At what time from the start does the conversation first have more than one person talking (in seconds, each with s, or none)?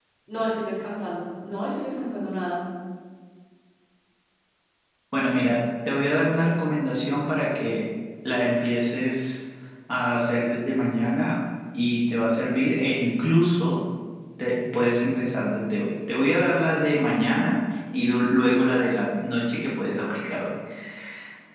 none